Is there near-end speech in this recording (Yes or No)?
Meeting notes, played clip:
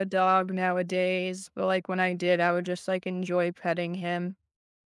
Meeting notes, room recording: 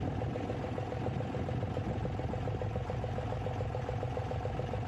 No